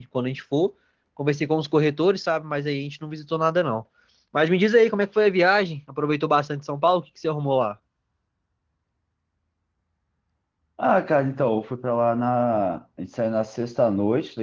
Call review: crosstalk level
none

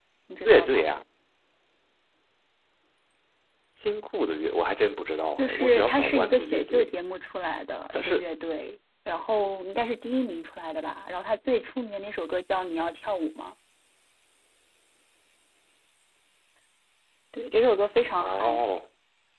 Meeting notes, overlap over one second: present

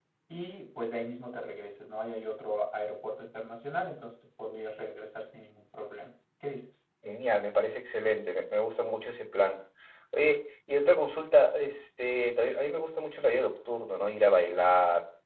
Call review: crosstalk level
none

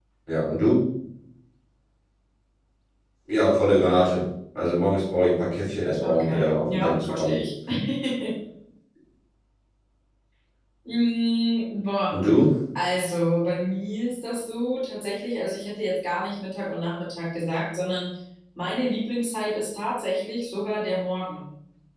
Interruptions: present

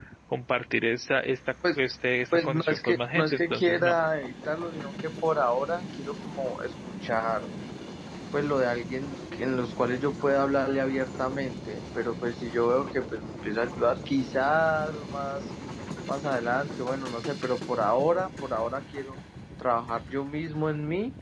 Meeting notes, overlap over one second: present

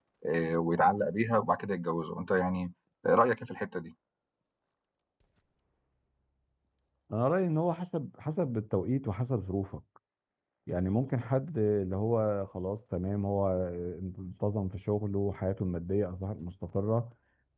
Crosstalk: none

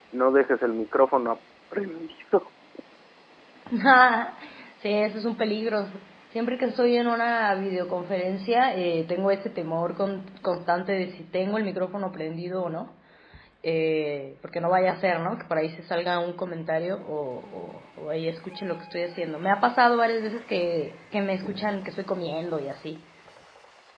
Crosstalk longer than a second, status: none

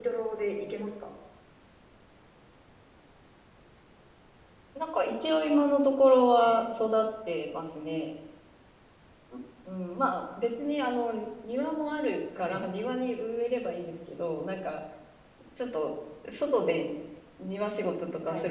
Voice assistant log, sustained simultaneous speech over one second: none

